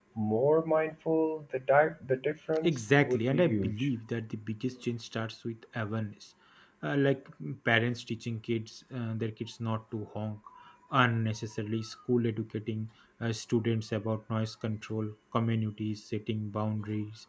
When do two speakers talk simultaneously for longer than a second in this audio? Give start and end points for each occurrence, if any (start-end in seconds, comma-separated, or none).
2.6-3.9